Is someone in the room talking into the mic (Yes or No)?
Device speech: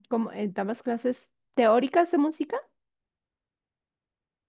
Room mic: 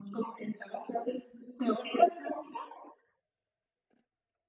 No